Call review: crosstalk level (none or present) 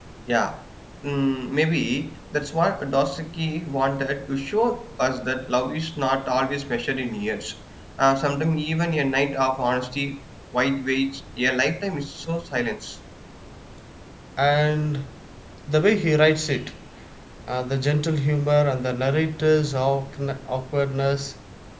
none